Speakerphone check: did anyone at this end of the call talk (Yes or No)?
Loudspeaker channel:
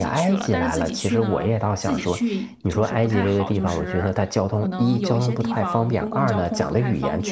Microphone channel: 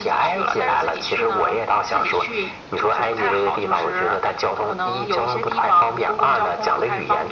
No